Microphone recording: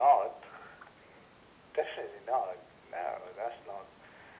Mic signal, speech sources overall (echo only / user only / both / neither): echo only